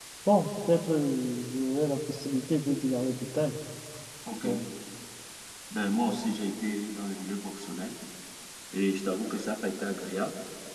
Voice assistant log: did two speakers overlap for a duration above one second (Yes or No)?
No